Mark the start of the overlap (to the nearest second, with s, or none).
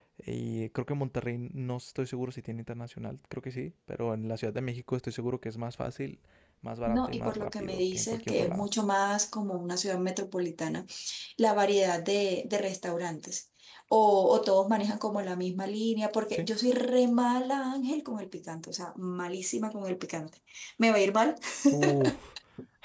7 s